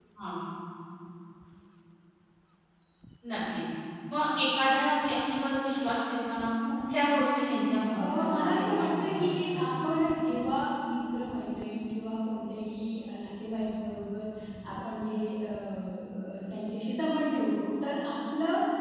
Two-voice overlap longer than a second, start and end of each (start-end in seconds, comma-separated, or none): 7.9-9.6